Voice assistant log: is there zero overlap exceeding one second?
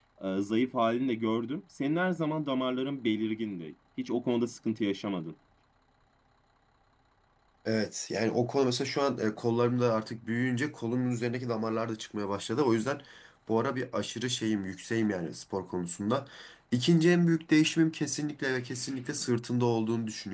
Yes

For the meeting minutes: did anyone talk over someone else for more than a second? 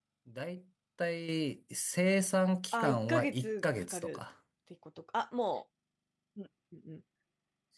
Yes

